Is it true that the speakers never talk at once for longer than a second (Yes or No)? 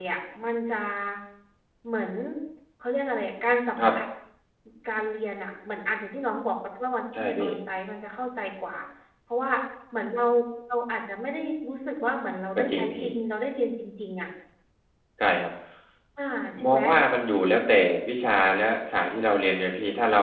Yes